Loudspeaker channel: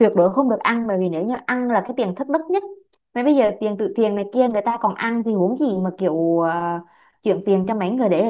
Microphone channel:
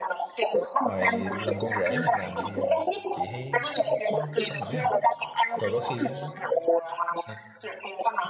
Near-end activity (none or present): present